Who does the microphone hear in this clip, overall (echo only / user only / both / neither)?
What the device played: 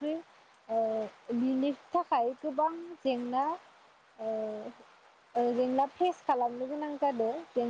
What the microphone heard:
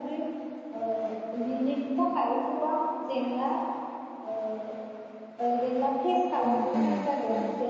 both